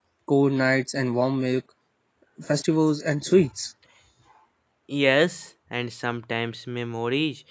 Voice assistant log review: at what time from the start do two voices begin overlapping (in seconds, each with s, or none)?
none